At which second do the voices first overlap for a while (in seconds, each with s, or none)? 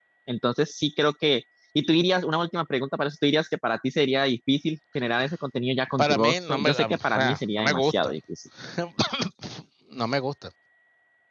6.0 s